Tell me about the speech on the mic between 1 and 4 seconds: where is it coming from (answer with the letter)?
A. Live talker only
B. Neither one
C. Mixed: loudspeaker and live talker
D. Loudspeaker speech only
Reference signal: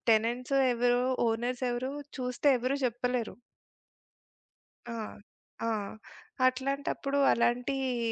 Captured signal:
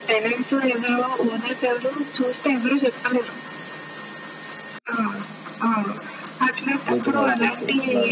D